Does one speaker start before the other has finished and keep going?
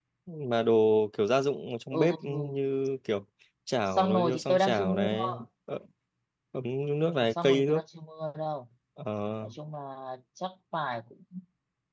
Yes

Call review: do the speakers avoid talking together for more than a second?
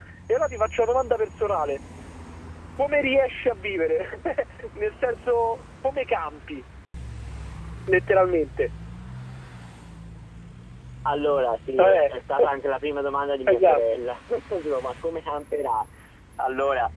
Yes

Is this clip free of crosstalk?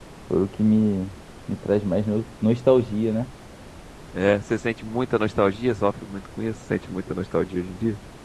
Yes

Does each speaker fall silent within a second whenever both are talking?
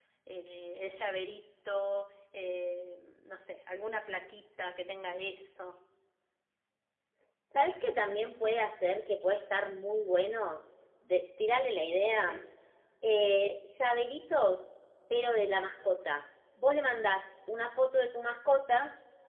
Yes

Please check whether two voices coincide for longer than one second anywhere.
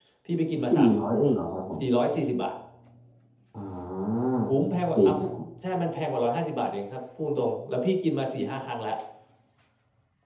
No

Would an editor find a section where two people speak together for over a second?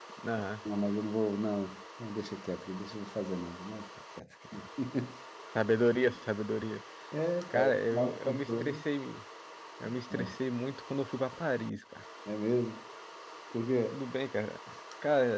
Yes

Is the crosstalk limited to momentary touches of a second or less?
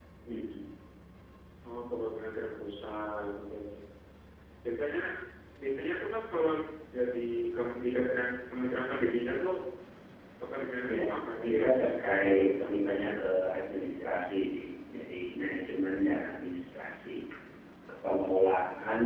No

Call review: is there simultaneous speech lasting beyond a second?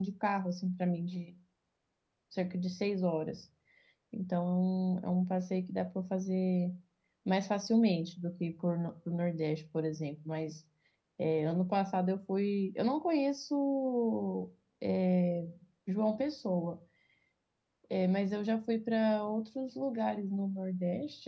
No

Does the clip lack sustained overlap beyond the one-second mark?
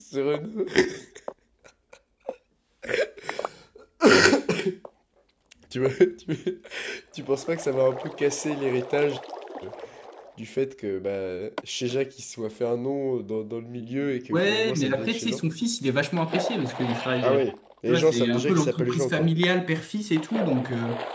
No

